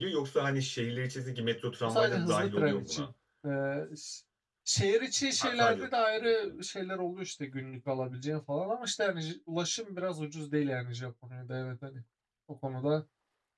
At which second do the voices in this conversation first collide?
1.9 s

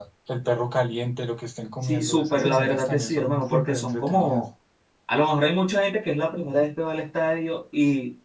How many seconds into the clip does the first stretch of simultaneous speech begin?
1.8 s

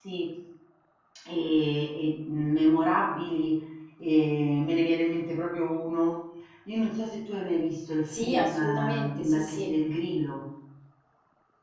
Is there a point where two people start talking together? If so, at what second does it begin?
8.1 s

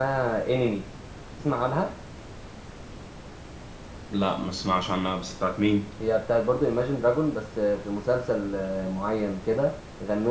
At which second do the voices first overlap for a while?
none

